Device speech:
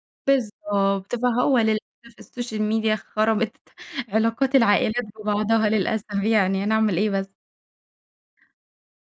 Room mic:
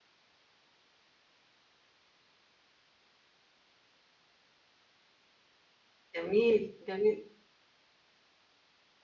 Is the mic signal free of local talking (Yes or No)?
No